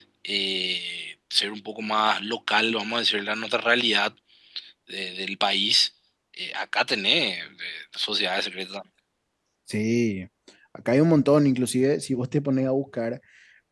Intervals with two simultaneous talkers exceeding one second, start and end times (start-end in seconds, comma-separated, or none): none